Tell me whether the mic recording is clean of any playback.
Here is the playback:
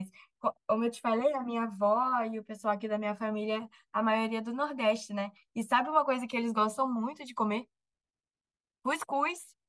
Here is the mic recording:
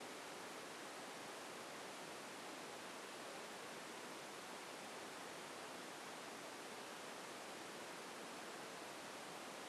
Yes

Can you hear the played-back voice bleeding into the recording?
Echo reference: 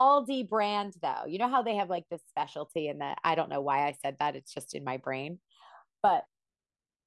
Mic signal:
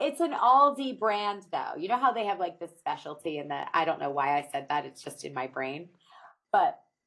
Yes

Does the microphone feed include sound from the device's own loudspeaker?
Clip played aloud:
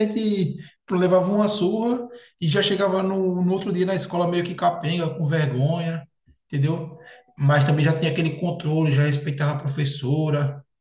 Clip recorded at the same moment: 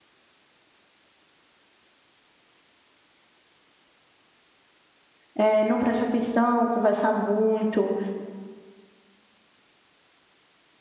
No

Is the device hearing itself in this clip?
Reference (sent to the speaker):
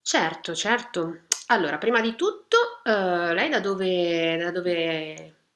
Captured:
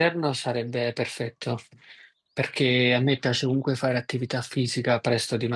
No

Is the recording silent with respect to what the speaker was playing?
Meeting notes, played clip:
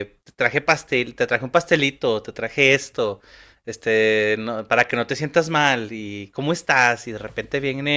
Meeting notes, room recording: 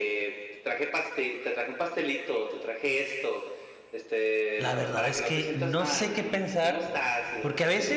No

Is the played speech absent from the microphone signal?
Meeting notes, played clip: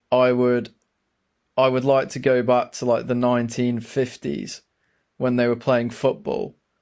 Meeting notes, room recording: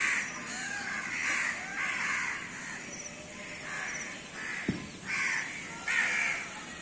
Yes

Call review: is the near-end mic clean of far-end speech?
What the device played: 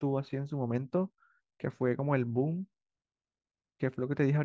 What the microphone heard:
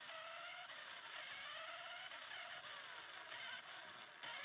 Yes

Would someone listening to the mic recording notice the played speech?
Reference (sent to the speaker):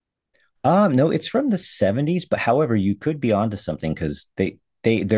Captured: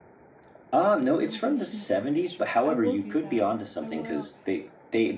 Yes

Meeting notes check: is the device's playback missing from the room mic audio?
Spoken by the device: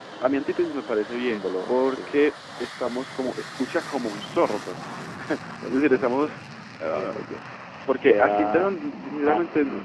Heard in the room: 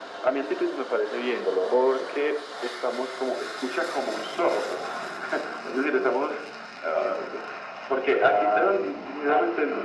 No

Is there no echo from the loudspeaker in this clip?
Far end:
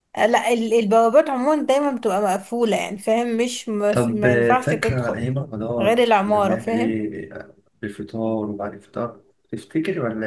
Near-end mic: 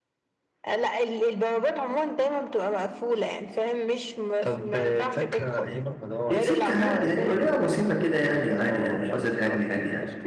No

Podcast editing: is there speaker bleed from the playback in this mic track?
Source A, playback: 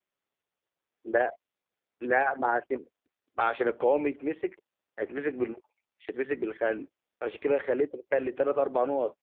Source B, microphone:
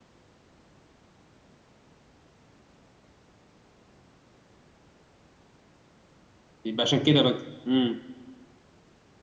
No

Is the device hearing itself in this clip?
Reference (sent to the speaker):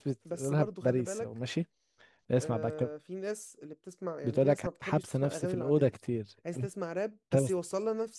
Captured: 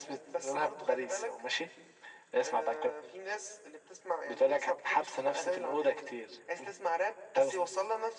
Yes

